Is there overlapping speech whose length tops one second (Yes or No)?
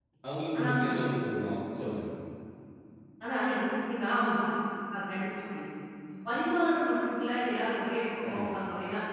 No